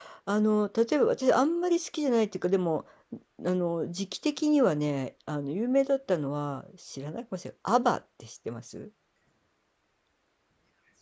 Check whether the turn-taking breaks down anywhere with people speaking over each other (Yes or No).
No